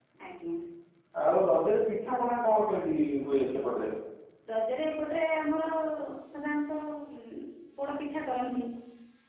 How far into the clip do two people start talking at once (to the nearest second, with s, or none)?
none